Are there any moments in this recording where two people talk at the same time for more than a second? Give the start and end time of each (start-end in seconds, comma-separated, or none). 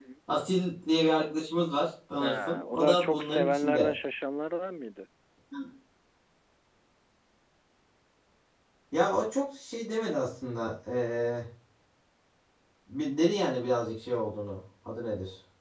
2.2-3.9